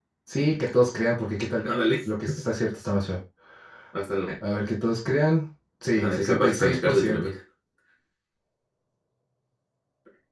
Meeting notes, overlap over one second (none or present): present